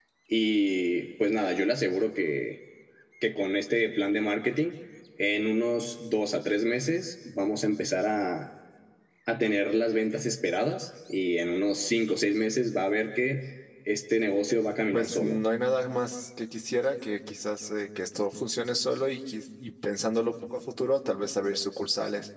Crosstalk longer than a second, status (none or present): none